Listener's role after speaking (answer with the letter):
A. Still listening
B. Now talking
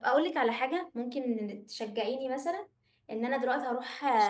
A